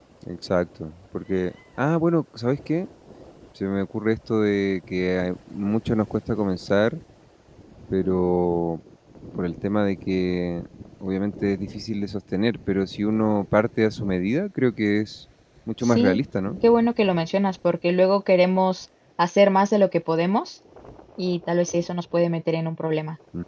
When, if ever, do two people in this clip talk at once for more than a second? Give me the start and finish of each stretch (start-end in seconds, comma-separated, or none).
none